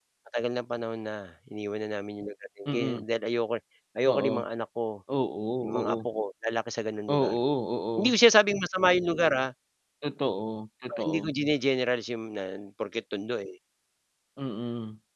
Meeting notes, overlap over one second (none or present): none